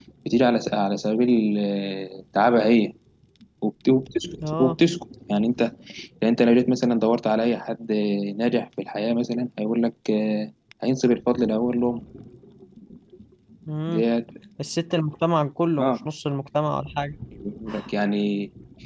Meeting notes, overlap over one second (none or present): none